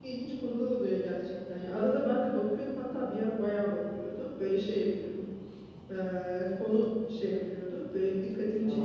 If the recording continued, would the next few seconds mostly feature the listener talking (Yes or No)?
No